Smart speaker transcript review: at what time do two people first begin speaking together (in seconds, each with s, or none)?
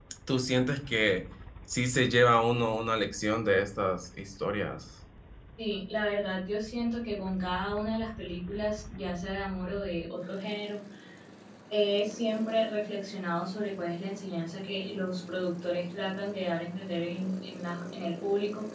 none